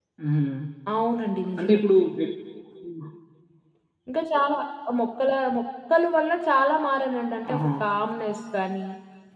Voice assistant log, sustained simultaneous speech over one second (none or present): none